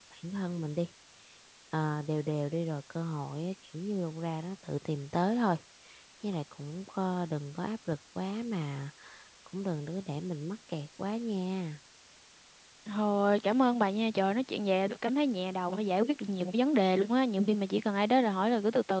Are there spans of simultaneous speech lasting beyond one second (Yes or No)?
No